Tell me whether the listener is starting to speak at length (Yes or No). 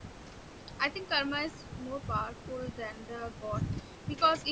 No